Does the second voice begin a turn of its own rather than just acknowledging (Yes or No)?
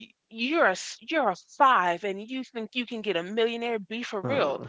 No